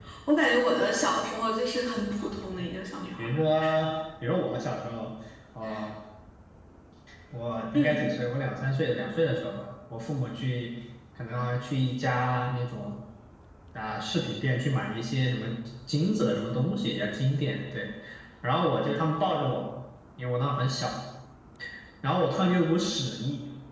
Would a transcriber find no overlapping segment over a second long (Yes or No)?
Yes